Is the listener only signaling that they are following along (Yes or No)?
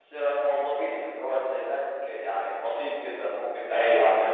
Yes